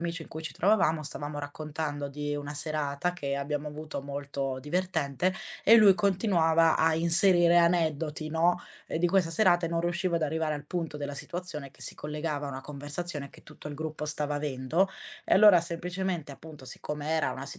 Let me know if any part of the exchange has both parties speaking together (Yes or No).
No